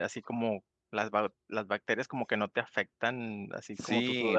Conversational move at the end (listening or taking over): taking over